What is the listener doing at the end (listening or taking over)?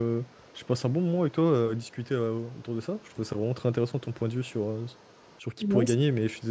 listening